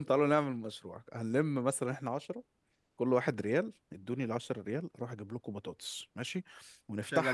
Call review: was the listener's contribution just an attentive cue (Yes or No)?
Yes